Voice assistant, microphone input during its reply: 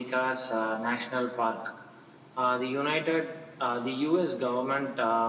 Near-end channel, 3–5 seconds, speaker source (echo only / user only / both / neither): echo only